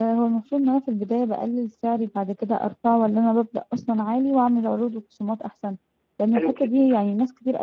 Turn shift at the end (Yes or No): No